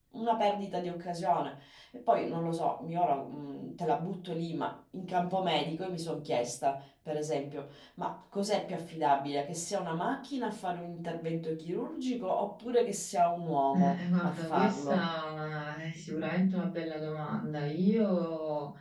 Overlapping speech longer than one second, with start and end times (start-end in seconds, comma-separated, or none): 13.8-15.1